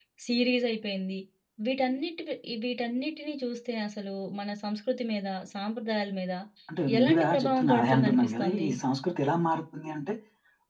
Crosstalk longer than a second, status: present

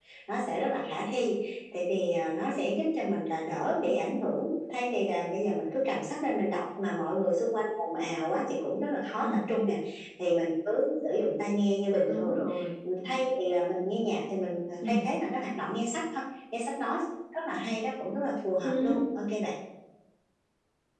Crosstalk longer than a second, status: none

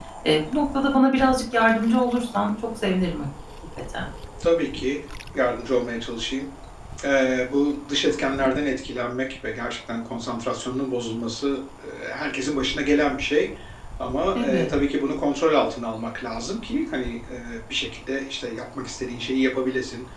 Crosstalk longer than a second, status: none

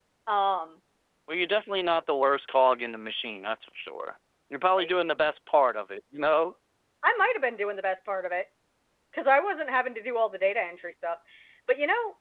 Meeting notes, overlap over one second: none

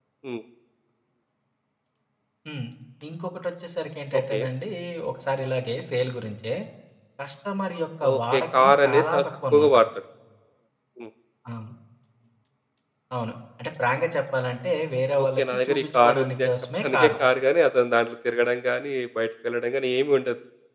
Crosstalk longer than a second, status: present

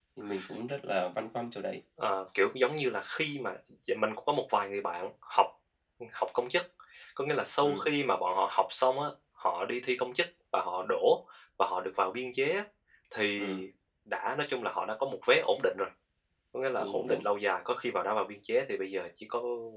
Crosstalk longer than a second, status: none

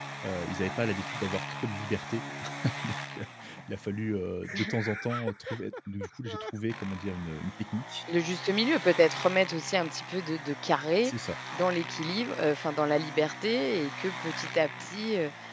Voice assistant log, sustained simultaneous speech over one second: none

